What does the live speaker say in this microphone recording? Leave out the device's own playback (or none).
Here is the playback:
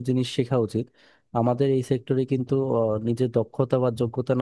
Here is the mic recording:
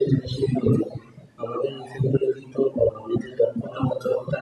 none